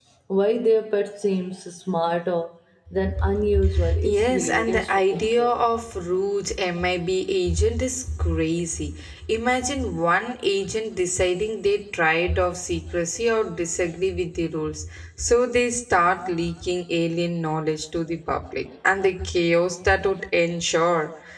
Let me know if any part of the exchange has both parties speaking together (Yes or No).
Yes